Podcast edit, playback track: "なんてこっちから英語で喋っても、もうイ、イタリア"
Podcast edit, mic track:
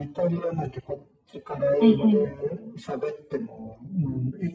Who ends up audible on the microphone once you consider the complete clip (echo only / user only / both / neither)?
both